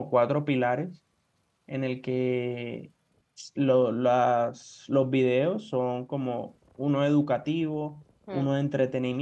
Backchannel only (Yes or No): Yes